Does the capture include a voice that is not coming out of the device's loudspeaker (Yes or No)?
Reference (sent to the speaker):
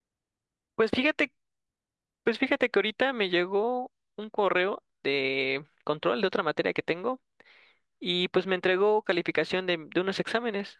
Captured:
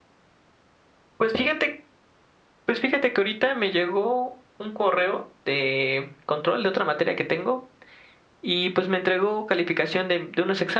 No